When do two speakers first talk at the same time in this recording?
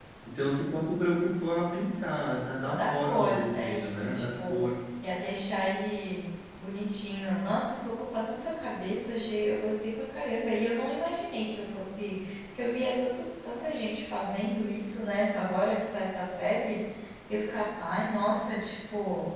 2.6 s

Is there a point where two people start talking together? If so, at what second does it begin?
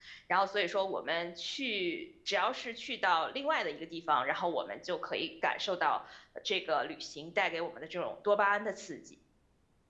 none

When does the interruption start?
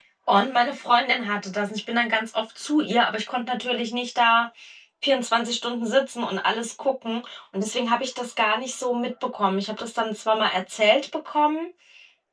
none

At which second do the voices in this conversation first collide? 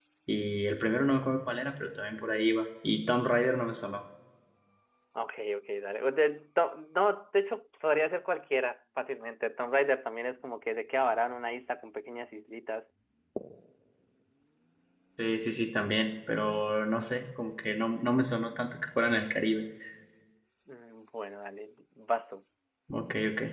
none

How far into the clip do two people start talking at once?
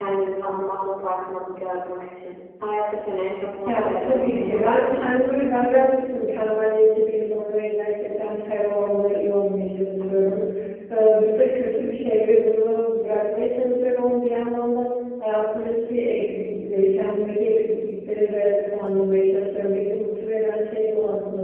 3.6 s

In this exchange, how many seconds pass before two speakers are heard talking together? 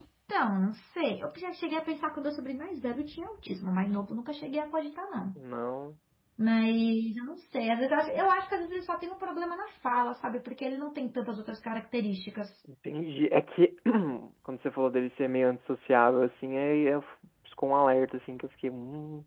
none

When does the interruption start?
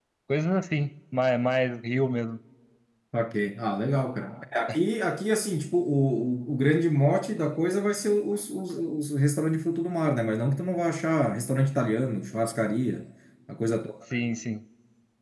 none

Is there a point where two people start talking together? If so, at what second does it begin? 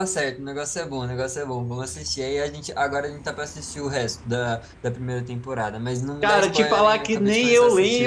6.2 s

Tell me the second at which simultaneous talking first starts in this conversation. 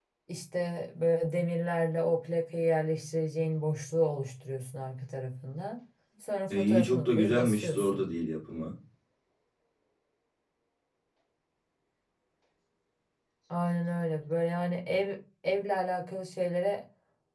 6.5 s

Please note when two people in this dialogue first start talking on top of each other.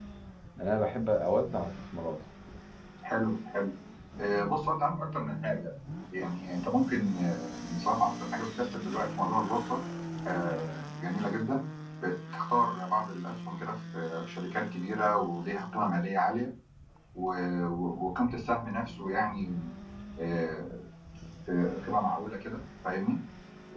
none

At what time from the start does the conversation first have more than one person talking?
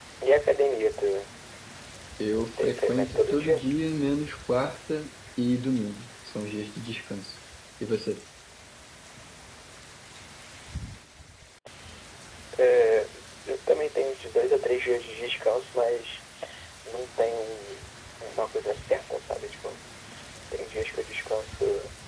2.3 s

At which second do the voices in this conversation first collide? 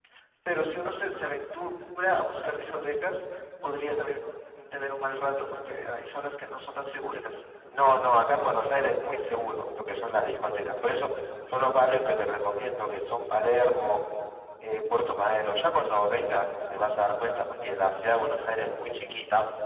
none

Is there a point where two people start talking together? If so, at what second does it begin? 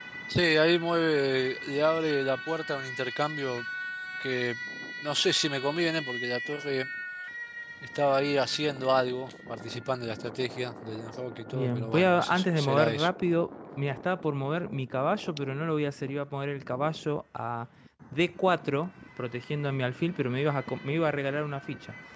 11.5 s

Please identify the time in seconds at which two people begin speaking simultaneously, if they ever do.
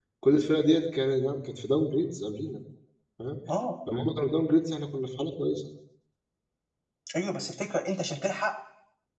none

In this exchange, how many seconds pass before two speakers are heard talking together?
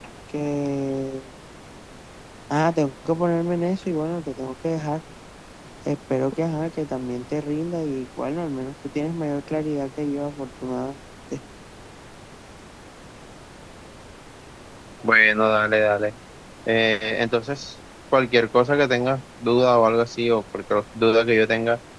none

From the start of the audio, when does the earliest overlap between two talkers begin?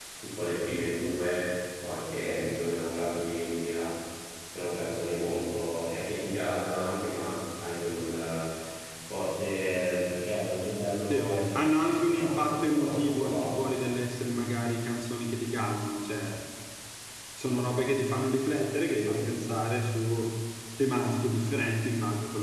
11.1 s

